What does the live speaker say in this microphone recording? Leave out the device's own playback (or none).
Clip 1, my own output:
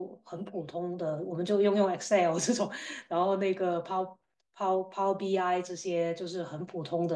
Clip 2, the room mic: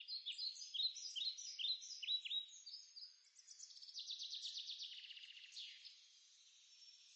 none